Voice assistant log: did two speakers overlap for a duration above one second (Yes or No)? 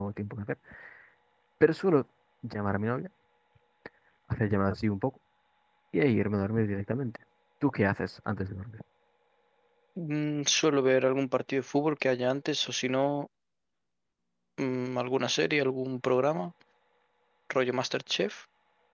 No